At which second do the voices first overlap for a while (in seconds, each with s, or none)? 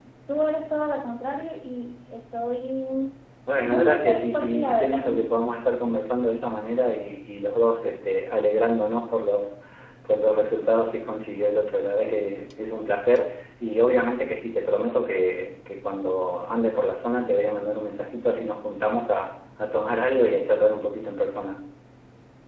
3.6 s